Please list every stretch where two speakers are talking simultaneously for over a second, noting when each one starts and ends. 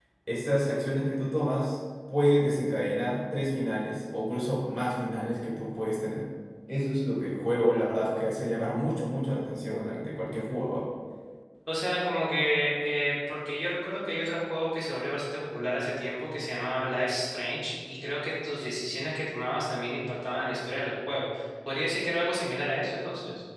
none

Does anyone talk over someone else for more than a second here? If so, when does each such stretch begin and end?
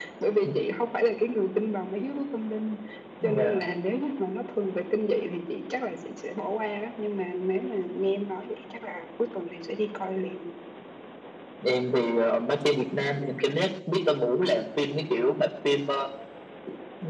none

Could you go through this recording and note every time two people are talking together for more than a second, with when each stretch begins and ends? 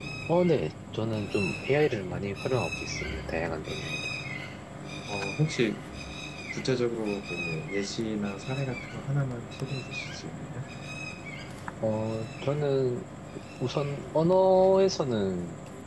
none

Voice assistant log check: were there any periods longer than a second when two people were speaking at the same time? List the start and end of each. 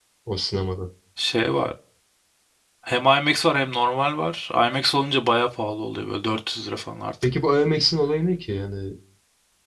none

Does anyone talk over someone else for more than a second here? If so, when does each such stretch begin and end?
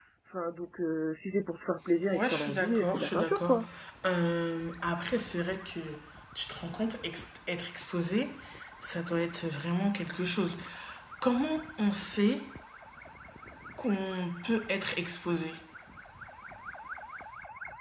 2.1-3.5

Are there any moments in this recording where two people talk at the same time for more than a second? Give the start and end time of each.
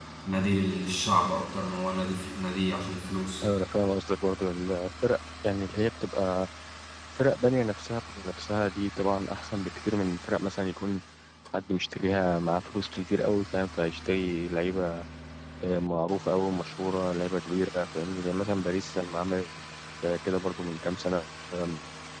none

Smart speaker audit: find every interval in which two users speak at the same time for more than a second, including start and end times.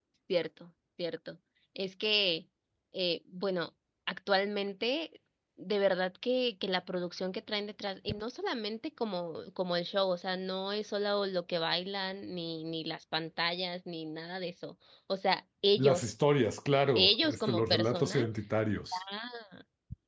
17.0-18.3

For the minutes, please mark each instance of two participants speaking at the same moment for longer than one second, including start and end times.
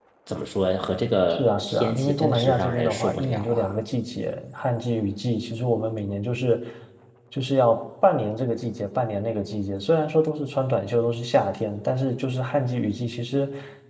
1.3-3.8

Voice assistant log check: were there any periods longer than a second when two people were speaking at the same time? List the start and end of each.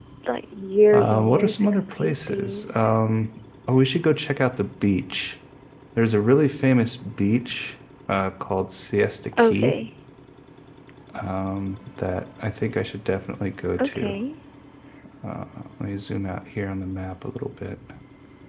0.9-2.8

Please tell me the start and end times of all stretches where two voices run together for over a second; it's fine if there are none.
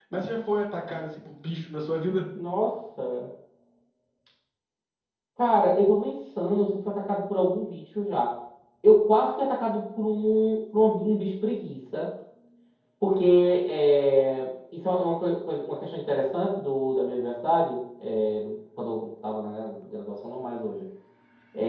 none

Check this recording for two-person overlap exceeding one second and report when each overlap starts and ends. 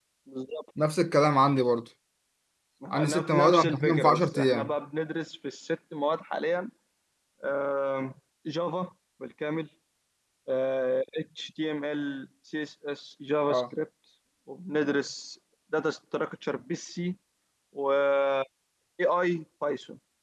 2.9-4.7

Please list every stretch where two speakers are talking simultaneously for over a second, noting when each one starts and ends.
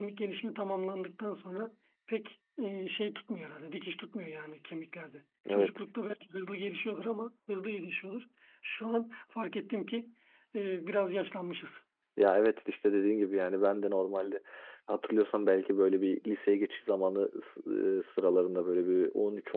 none

